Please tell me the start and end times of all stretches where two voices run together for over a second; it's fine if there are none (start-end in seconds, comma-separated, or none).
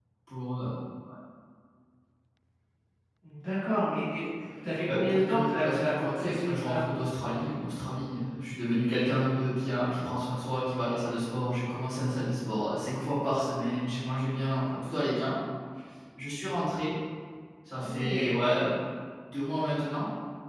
4.9-6.8